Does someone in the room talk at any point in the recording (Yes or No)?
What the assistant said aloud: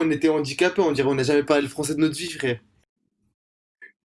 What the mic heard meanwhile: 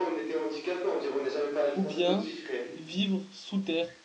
Yes